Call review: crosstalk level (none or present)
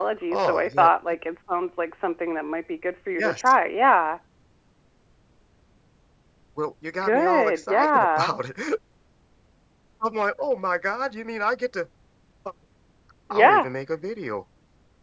present